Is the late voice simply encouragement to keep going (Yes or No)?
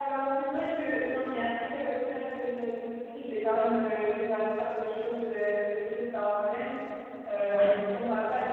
Yes